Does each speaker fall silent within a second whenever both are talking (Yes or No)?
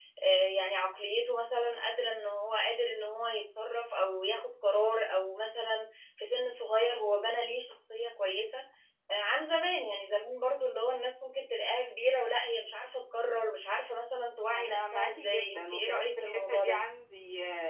No